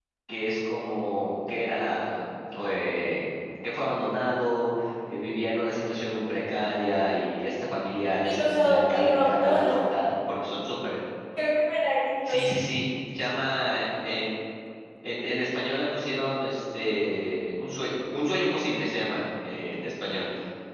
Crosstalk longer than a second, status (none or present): present